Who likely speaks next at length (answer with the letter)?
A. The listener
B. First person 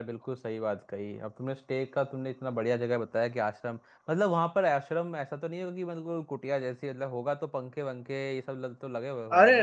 A